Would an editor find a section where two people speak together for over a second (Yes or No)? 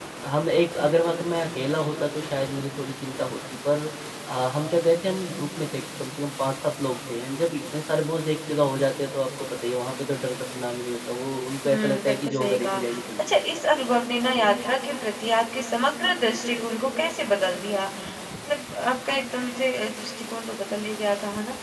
Yes